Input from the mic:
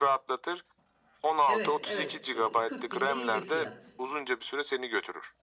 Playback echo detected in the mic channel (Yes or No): Yes